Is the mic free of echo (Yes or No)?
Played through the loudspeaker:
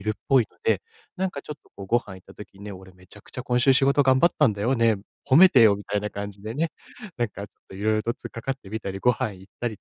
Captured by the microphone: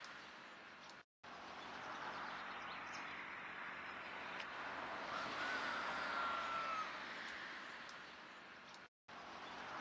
Yes